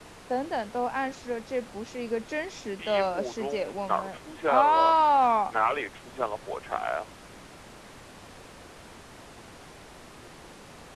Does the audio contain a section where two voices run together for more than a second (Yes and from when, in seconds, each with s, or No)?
Yes, from 2.8 s